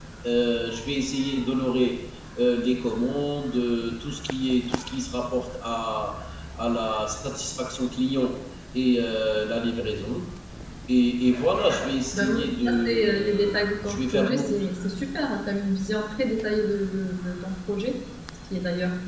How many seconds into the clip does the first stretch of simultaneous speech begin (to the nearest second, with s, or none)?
12 s